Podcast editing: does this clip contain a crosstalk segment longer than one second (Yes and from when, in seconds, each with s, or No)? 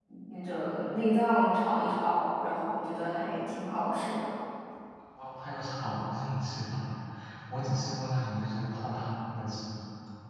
No